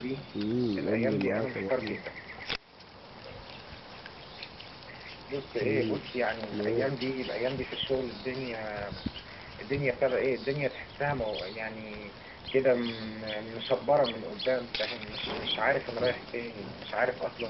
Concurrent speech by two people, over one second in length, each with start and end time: 0.8-2.0

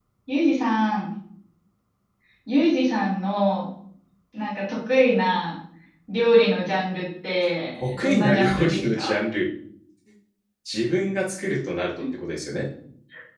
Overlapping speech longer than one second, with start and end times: 7.8-9.2

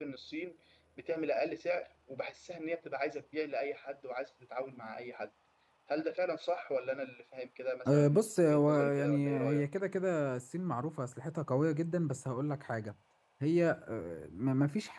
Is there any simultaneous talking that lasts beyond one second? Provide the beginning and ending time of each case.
7.9-9.6

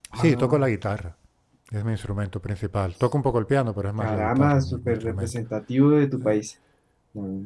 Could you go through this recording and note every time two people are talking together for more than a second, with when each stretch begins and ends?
4.0-5.4

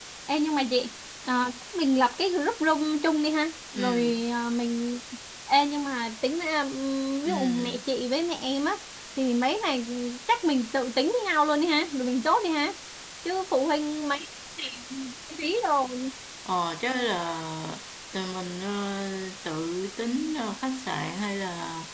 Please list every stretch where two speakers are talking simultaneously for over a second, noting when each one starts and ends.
none

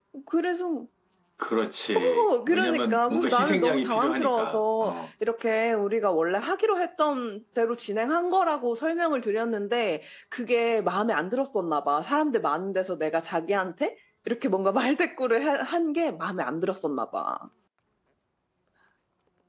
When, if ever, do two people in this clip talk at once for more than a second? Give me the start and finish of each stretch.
2.0-5.0

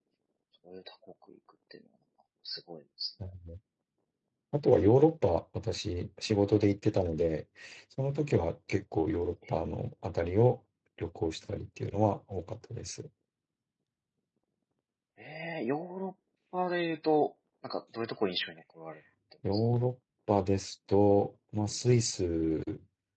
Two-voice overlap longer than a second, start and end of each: none

